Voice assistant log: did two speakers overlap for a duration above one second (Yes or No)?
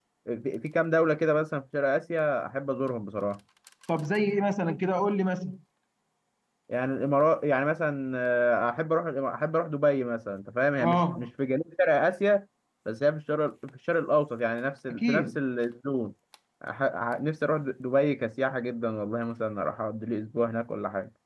No